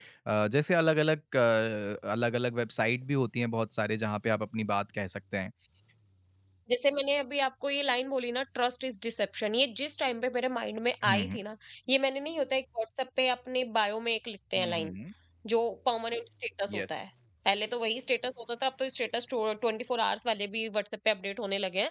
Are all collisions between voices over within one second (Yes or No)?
Yes